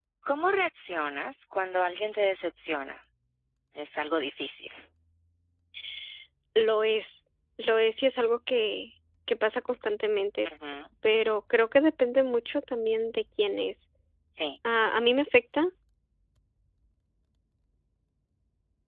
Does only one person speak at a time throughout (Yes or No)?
Yes